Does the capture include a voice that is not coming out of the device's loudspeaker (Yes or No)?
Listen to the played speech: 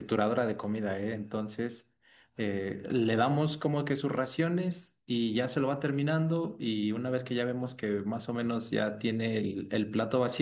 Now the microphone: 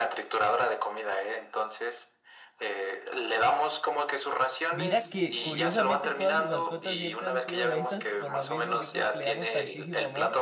Yes